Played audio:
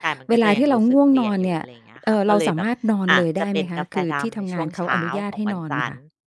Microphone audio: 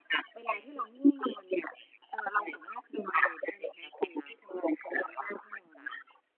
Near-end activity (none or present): none